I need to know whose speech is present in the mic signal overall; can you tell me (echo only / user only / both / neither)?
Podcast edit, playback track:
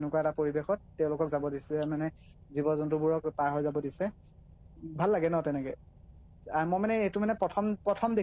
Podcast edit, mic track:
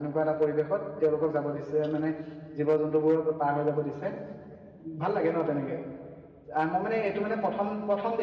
echo only